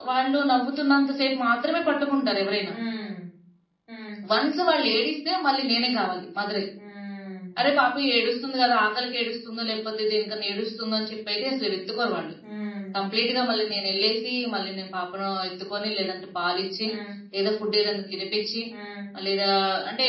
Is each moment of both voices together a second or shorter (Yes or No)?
Yes